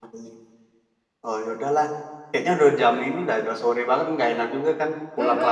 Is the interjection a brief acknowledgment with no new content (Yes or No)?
No